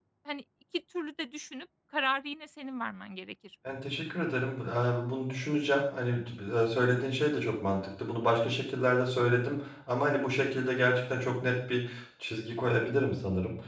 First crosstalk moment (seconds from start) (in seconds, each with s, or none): none